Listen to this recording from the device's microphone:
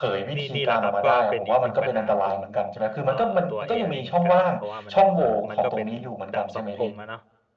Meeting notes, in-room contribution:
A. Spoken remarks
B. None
A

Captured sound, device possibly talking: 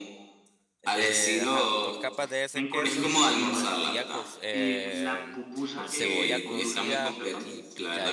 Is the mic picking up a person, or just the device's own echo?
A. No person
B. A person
B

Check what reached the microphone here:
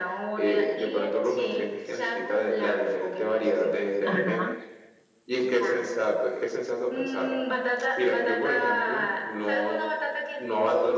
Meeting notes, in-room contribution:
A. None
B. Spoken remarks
B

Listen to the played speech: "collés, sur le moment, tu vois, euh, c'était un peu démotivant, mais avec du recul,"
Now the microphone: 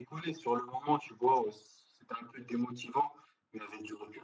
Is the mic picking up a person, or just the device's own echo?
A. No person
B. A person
A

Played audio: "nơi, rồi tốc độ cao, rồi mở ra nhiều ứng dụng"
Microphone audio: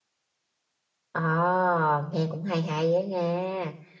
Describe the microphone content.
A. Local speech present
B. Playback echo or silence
A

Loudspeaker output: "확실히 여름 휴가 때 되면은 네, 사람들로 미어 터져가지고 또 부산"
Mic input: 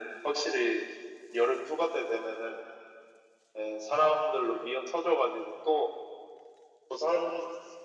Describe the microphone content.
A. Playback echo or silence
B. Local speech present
A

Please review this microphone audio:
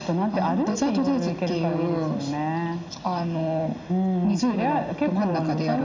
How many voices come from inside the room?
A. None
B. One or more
A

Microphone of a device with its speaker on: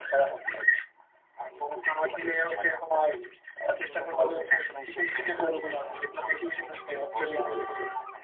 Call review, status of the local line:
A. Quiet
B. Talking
A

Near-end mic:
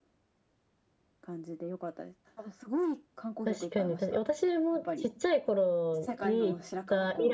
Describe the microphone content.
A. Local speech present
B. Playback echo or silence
A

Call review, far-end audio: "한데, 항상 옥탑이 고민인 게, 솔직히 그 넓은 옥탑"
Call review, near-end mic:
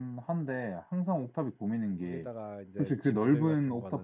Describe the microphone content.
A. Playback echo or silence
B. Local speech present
B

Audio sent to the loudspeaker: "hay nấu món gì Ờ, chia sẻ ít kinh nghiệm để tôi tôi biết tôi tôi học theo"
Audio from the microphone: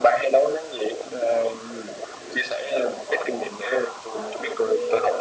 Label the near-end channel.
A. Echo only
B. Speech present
B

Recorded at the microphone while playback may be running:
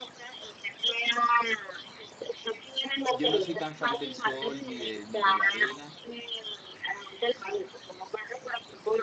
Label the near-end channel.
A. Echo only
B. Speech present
B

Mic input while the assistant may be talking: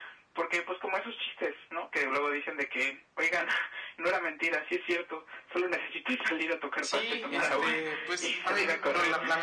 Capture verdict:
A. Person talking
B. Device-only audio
A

